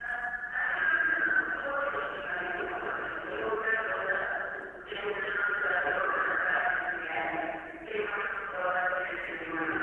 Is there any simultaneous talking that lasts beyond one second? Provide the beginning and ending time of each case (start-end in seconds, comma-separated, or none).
none